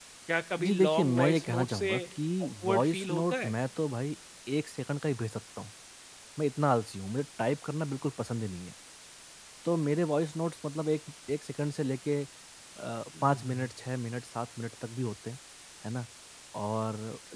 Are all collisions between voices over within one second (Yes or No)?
No